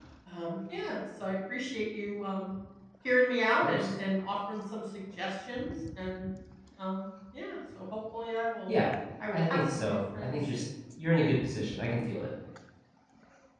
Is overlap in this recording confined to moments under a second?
No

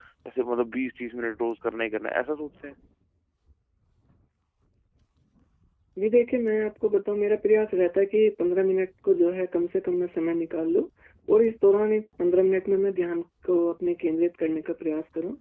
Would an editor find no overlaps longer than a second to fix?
Yes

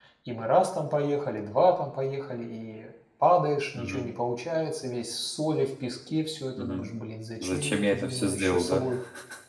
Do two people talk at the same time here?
Yes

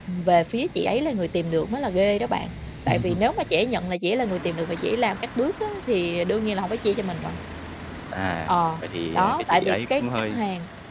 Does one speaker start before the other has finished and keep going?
Yes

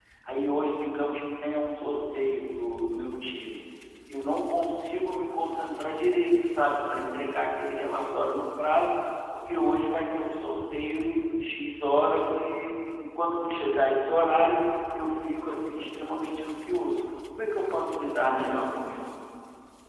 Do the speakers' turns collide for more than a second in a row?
No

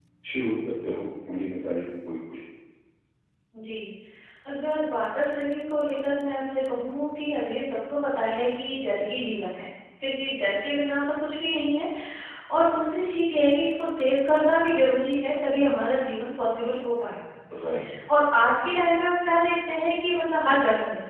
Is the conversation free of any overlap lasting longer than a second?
Yes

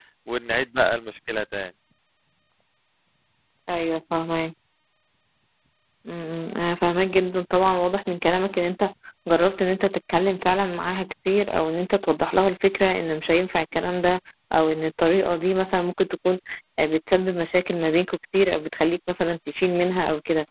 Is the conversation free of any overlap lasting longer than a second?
Yes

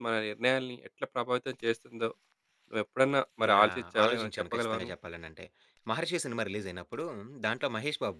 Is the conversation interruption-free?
No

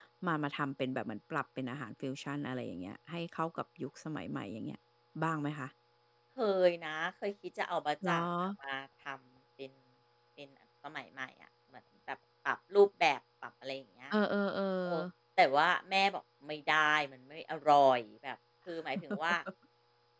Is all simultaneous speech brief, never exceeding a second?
Yes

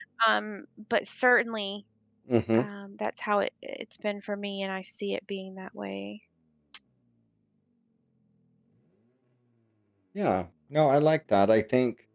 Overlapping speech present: No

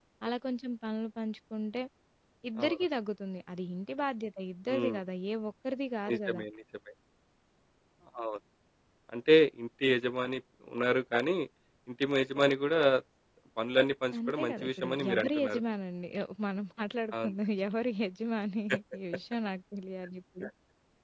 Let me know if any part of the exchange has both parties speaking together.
Yes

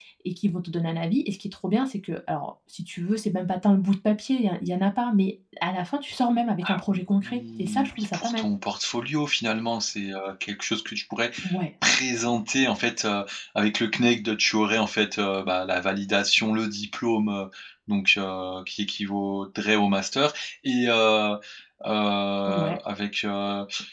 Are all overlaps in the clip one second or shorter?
No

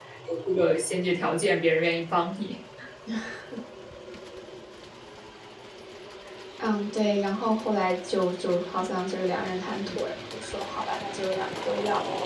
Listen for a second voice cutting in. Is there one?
No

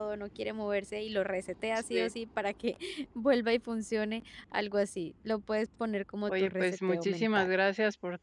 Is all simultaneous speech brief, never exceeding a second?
No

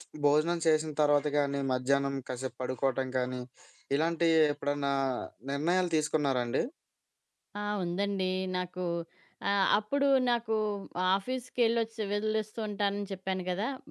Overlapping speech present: No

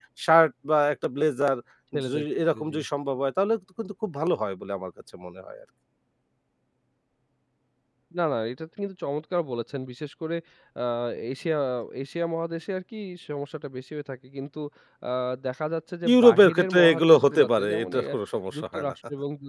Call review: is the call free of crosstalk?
No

